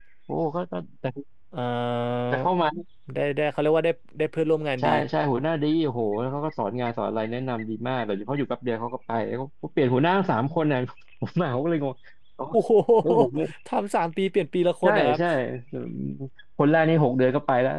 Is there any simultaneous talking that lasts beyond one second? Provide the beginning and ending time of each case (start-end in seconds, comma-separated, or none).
none